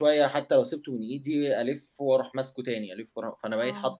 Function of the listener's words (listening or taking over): taking over